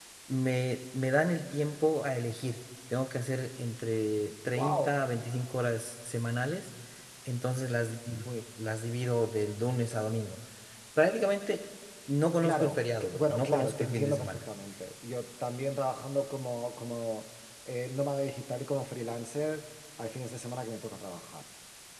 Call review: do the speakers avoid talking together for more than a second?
No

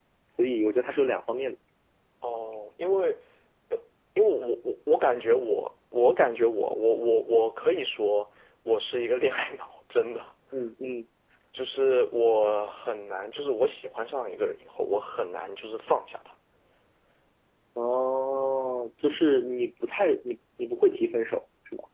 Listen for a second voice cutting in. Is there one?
No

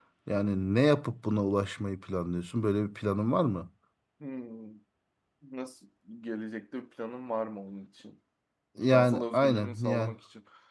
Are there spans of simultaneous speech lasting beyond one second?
Yes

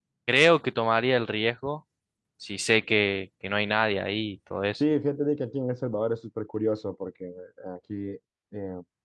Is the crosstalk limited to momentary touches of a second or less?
Yes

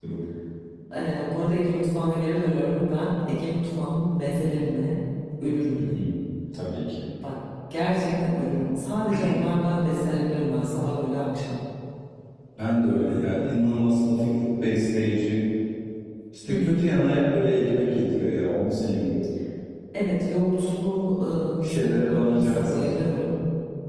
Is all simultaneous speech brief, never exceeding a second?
No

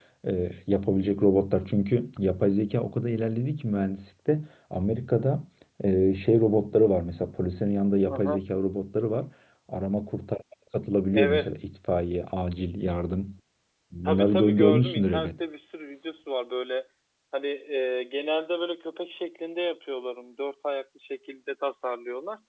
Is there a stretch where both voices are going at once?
Yes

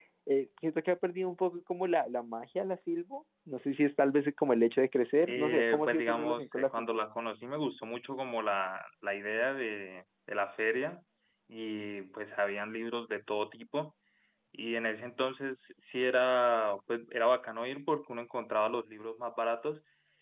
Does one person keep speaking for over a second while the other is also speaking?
Yes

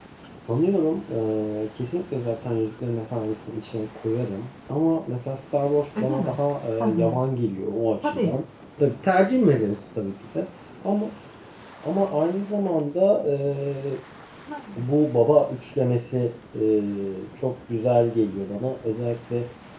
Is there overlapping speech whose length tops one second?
No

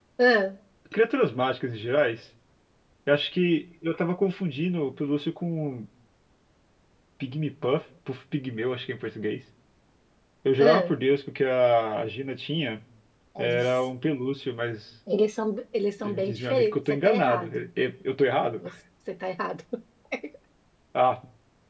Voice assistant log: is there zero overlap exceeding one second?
No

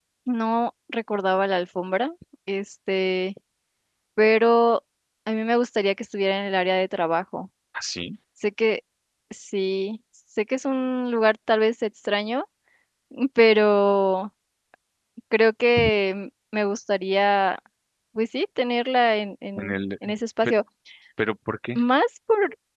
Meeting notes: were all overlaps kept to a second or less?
Yes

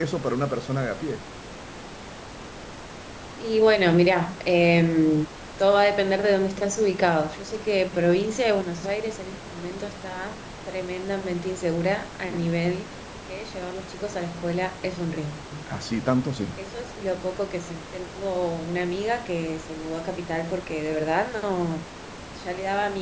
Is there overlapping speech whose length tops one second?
No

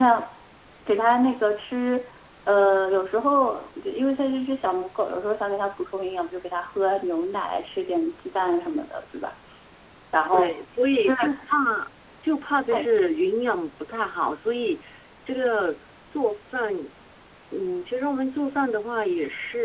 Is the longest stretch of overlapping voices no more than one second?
Yes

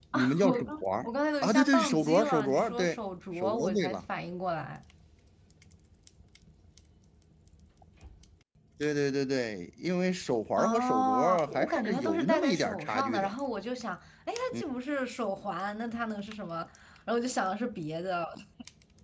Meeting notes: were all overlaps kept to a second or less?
No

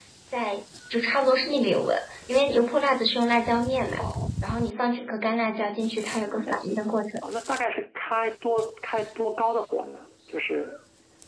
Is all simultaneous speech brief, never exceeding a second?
Yes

